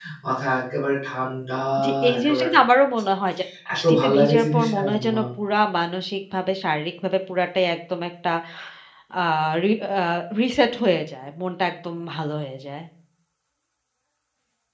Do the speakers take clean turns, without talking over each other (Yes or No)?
No